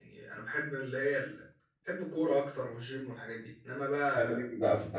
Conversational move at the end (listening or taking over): taking over